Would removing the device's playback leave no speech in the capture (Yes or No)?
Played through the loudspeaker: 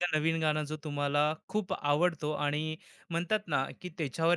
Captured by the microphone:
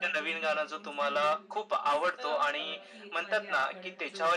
No